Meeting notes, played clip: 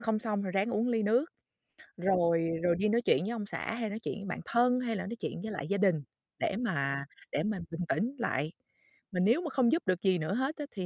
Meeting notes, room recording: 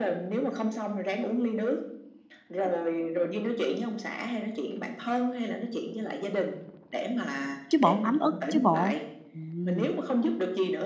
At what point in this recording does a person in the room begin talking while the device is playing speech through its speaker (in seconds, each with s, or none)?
7.7 s